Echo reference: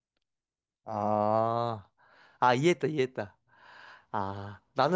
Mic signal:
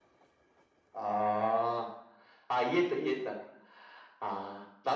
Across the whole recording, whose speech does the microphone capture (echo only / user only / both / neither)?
echo only